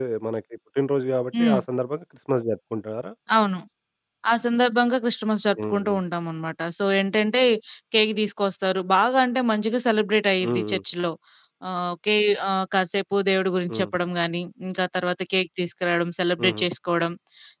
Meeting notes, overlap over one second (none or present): none